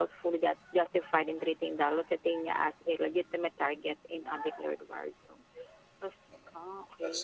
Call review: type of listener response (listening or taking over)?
listening